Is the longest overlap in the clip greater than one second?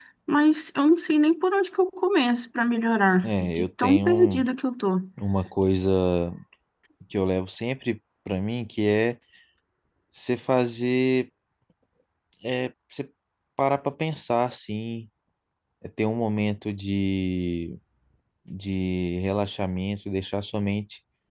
Yes, from 3.2 s

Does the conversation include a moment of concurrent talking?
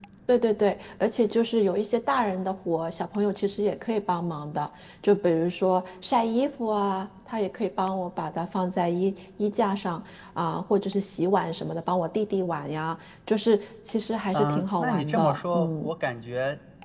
Yes, from 14.3 s

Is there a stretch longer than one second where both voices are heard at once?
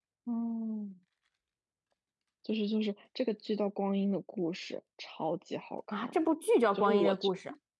No

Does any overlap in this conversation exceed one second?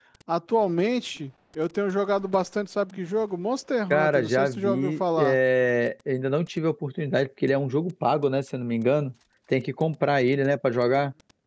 Yes, from 3.9 s

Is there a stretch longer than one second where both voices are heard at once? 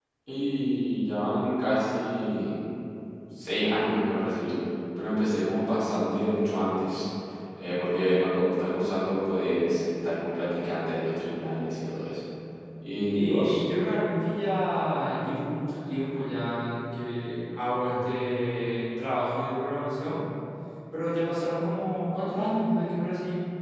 No

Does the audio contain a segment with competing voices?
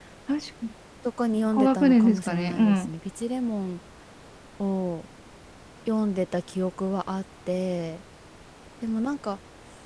Yes, from 1.5 s

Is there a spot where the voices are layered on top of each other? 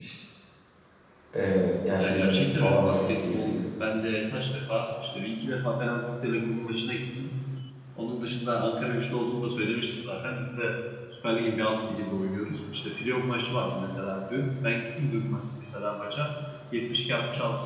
Yes, from 2.0 s

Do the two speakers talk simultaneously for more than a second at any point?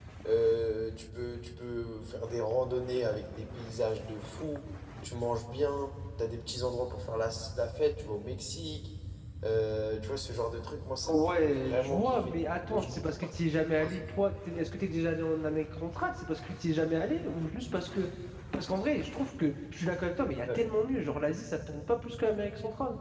Yes, from 11.0 s

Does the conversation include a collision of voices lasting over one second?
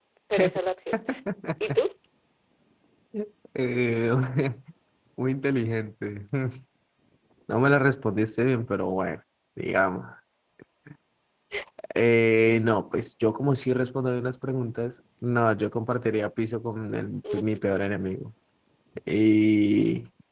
No

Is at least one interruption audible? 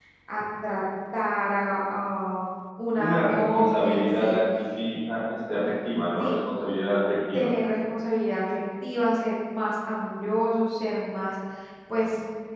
Yes, from 3.0 s

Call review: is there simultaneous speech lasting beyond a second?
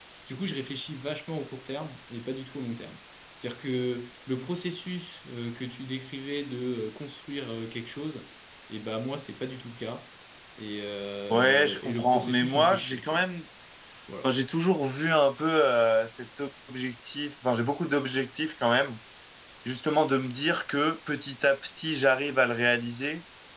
Yes, from 11.3 s

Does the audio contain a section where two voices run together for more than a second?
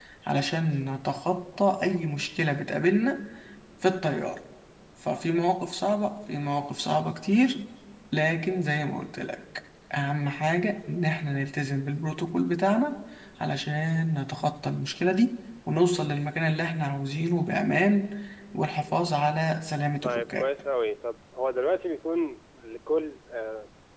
No

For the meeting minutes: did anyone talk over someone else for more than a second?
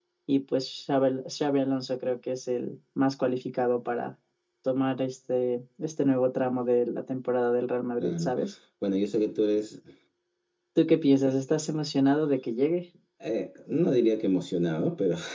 No

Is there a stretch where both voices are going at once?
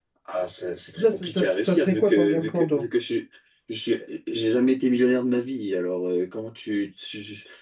Yes, from 1.0 s

